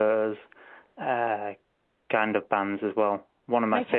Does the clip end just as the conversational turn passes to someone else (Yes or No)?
No